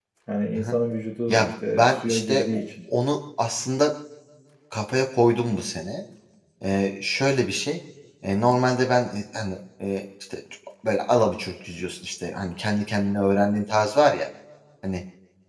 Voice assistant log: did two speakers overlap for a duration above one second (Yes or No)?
Yes